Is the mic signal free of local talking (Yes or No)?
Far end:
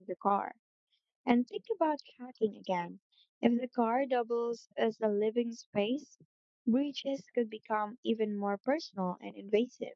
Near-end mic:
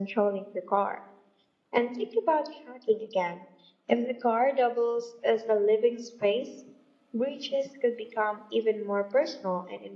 Yes